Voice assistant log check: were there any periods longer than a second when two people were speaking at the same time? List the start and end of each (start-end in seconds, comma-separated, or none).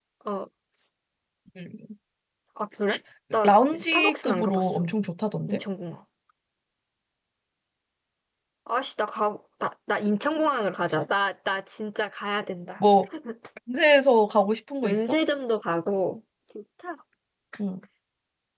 3.4-4.9